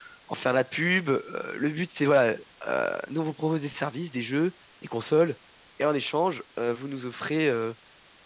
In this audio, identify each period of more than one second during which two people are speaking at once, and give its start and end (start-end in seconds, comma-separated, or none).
none